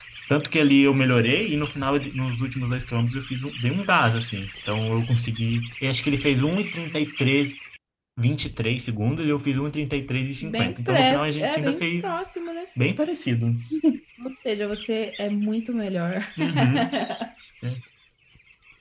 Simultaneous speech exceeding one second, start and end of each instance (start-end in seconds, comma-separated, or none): 10.4-12.1